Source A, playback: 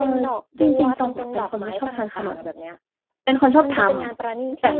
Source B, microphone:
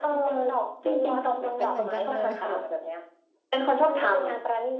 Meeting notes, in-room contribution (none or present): present